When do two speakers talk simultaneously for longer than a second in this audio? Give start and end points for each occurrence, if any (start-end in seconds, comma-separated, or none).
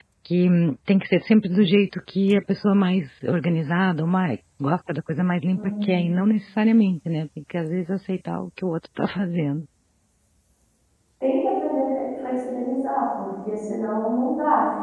none